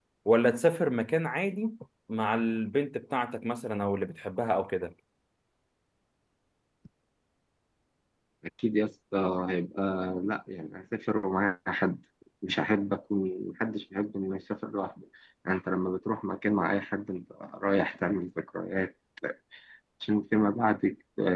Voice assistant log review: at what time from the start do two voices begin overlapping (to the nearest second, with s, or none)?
none